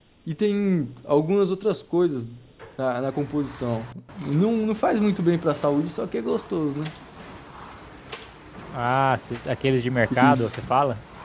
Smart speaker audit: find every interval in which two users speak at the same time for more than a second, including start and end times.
none

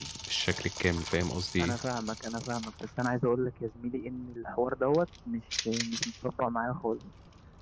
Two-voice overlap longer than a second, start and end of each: none

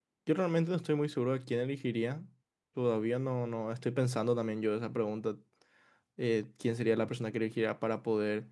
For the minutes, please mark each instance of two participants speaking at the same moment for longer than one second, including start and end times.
none

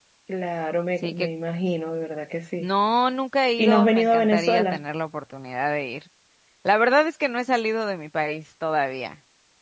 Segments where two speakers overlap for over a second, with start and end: 3.6-4.8

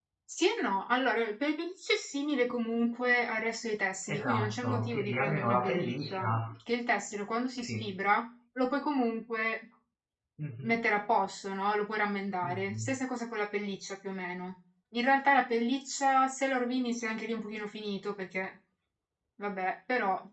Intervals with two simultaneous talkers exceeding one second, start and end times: 4.1-6.4

